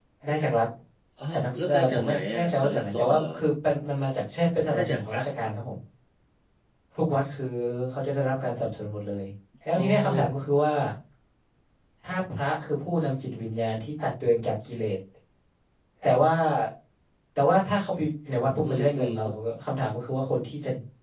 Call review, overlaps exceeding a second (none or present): present